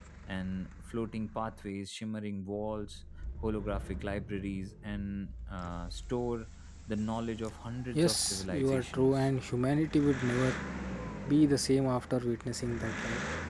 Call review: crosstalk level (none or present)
present